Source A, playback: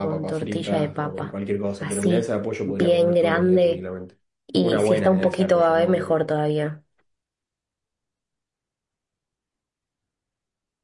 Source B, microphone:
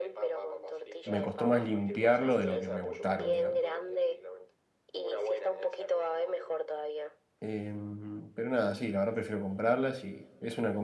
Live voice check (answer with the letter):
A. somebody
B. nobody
A